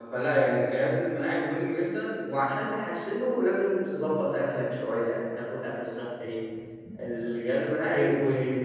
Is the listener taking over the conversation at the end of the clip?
No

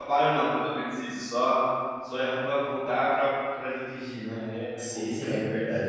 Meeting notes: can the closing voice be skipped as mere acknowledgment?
No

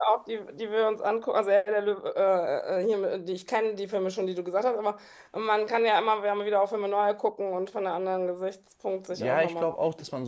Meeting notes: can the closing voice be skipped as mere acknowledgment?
No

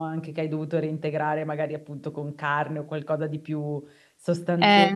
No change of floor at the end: Yes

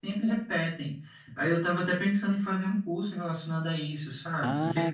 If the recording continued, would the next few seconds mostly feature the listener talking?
Yes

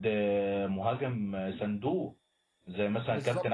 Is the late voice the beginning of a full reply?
No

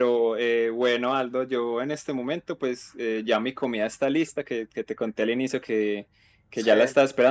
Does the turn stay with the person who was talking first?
Yes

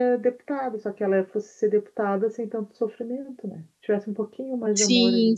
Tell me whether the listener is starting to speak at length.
Yes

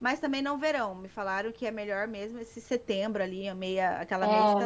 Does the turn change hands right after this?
Yes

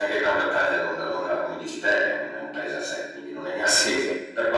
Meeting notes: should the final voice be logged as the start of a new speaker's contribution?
No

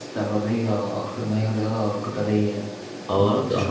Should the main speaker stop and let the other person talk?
Yes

